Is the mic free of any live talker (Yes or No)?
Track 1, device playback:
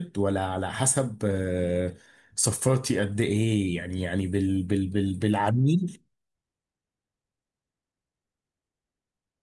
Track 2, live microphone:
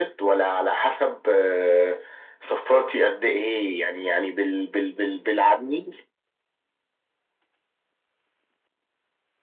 Yes